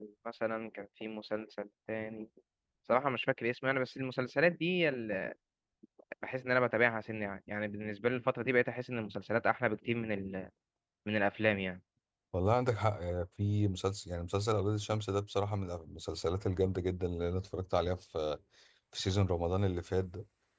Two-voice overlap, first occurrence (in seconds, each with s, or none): none